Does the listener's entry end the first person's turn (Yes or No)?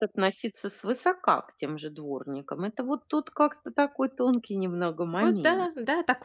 Yes